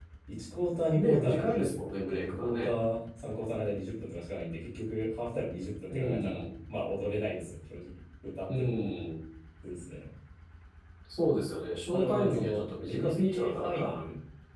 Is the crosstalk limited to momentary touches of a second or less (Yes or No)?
No